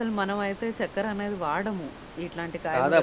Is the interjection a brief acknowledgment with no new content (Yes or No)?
No